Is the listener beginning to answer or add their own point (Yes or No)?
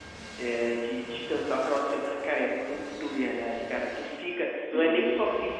No